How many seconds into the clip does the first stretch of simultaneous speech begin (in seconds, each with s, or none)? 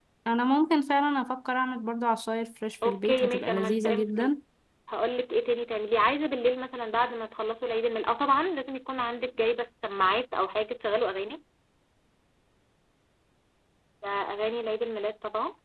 2.8 s